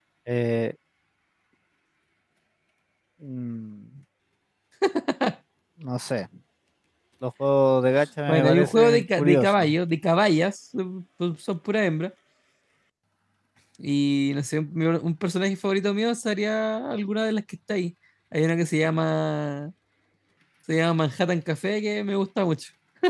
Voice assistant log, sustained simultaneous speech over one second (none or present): present